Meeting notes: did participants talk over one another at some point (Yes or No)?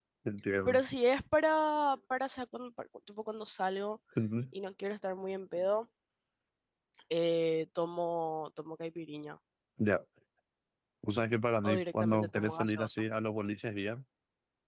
Yes